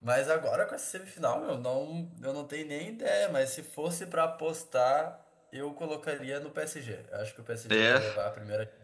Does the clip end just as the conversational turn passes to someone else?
No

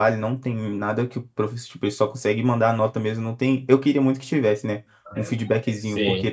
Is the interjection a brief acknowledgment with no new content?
Yes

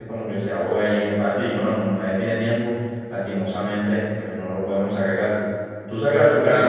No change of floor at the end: No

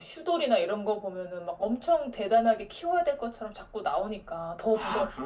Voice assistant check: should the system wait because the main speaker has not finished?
No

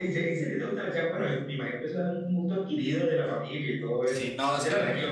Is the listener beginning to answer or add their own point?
Yes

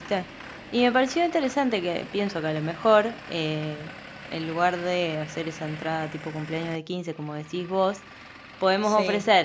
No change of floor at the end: Yes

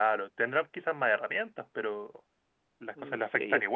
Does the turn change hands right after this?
Yes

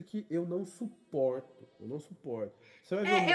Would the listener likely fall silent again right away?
No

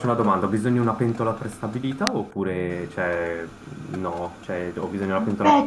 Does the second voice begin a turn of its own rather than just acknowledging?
Yes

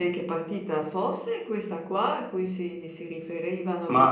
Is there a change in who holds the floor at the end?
Yes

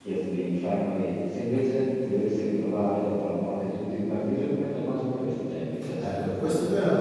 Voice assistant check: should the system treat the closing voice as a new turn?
Yes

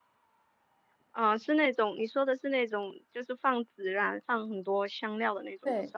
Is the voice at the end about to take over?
Yes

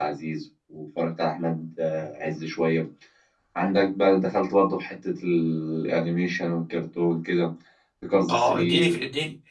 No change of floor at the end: No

